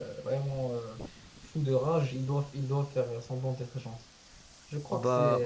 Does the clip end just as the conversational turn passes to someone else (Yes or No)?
Yes